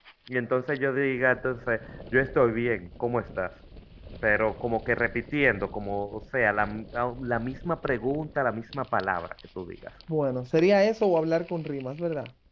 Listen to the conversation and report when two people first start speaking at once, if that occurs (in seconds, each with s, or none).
none